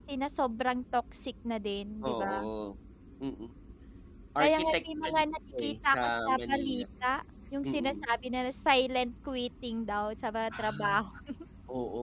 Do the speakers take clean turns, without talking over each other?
No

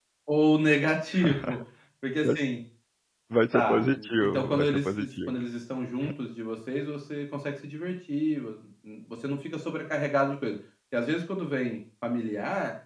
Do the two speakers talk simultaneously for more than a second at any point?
Yes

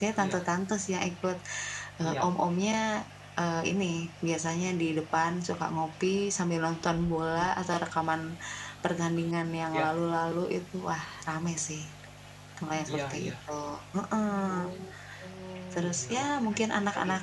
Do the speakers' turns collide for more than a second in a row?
Yes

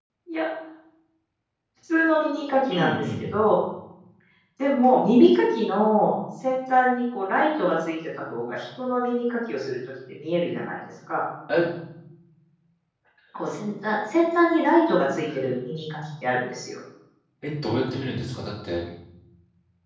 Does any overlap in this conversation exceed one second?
No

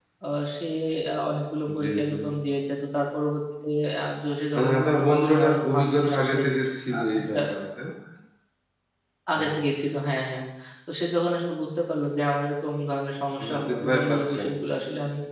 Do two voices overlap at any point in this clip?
Yes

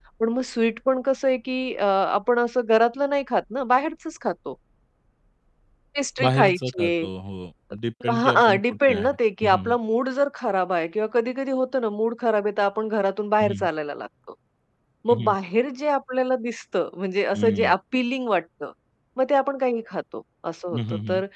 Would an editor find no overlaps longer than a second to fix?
No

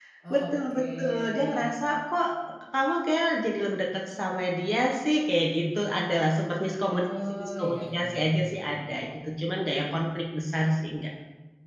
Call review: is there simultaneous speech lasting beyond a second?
Yes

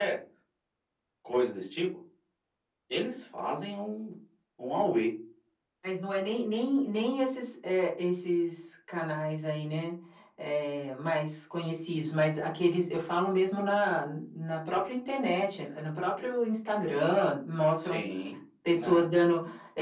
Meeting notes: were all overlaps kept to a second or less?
Yes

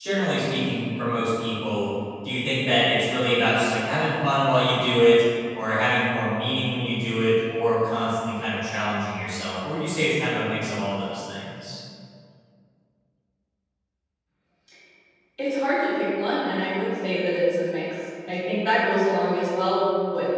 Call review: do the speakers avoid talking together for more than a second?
Yes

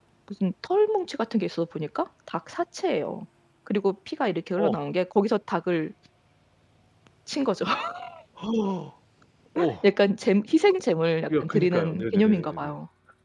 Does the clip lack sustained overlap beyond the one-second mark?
No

